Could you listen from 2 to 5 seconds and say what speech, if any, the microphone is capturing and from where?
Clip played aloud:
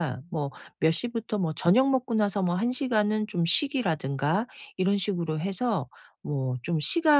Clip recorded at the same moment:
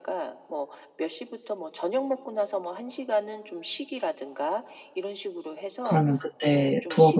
echo only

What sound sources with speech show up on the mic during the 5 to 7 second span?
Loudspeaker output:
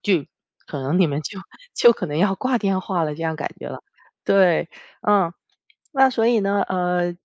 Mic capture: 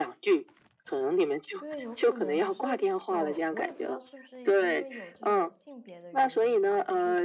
both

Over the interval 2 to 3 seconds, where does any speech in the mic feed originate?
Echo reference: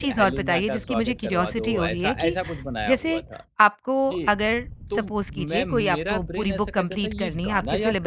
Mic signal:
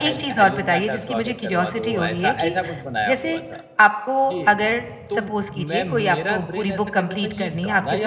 echo only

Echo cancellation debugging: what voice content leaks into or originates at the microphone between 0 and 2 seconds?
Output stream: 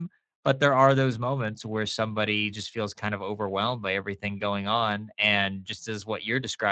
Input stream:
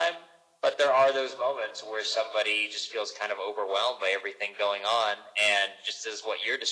echo only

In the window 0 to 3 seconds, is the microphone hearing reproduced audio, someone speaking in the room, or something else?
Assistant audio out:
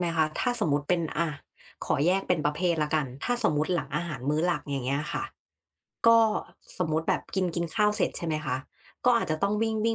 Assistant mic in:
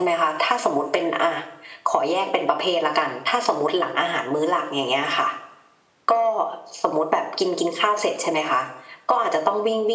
echo only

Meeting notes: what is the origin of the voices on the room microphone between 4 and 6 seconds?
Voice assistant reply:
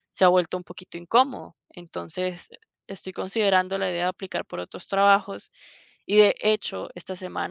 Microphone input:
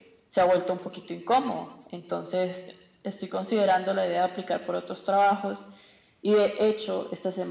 echo only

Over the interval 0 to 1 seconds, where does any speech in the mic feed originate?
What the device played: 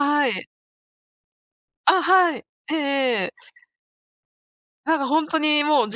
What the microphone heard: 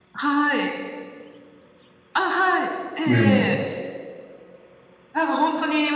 echo only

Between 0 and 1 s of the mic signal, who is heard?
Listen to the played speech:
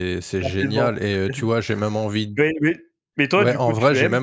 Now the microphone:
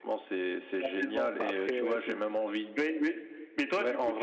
echo only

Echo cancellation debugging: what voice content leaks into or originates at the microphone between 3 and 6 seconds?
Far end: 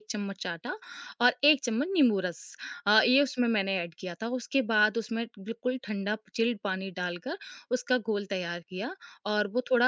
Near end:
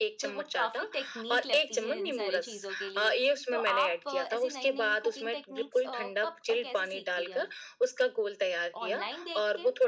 both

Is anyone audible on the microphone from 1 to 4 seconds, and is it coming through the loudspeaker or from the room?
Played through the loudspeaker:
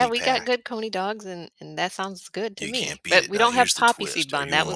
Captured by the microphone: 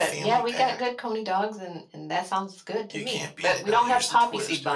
echo only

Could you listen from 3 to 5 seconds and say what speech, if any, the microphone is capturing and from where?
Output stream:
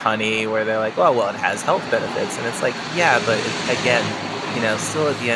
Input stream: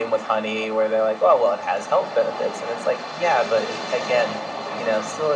echo only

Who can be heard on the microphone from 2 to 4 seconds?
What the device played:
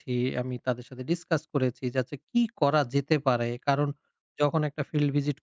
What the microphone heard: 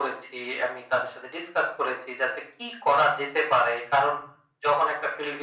echo only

